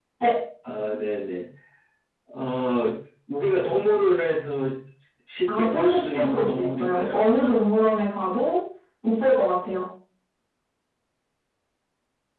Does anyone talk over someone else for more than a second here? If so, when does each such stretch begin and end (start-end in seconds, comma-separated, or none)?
5.6-7.2